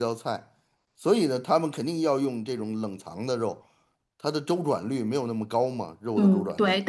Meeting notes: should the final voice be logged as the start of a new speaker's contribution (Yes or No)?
Yes